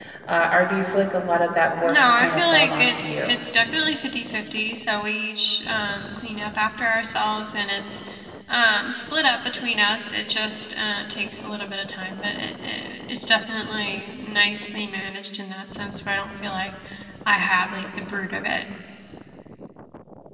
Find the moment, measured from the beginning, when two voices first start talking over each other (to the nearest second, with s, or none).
2 s